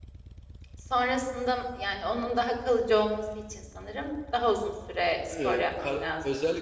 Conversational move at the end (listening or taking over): taking over